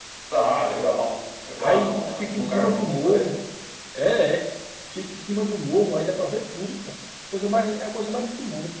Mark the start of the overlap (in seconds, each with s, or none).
1.6 s